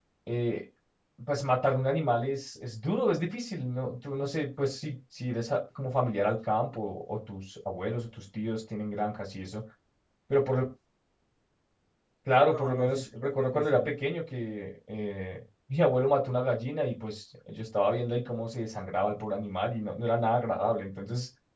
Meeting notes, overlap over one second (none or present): present